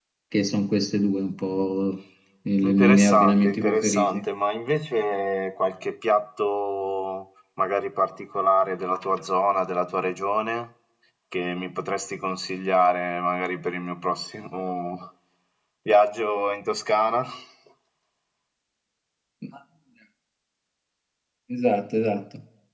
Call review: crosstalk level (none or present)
present